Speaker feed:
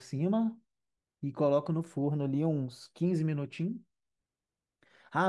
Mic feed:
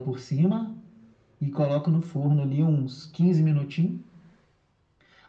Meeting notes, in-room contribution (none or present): none